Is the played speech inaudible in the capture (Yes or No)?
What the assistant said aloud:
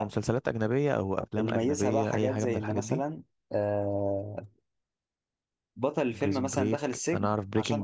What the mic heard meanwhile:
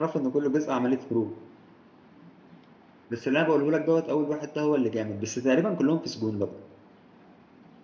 Yes